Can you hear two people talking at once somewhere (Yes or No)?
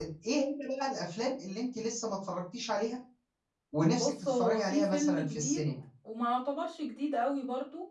Yes